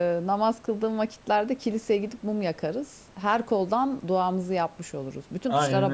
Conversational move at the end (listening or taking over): taking over